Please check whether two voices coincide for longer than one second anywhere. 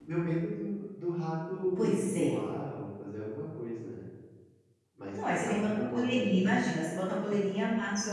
Yes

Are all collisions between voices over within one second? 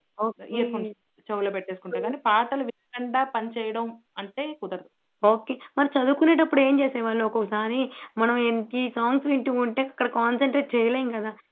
Yes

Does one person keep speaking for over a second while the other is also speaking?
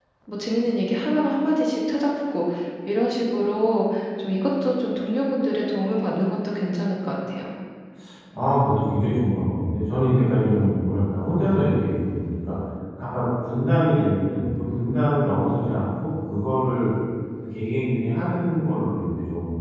No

